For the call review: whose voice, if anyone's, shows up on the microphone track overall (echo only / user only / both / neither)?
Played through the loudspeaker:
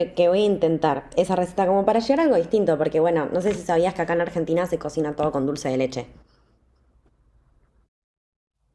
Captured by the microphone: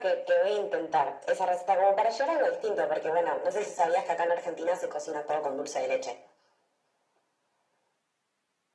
echo only